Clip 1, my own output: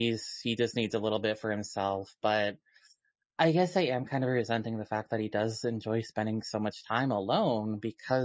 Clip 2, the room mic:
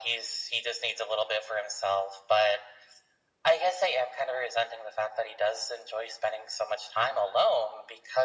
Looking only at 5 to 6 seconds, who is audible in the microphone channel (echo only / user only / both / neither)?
echo only